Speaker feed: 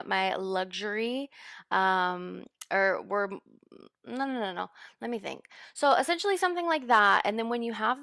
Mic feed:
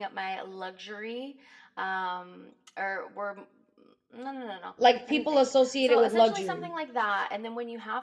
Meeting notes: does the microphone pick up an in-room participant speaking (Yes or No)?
Yes